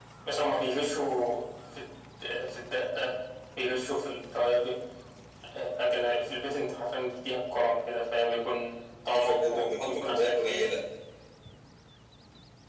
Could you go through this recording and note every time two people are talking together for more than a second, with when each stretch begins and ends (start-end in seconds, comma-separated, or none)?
9.1-10.7